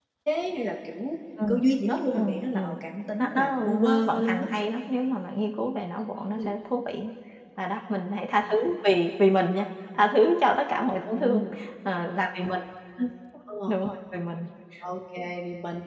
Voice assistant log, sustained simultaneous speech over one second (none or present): present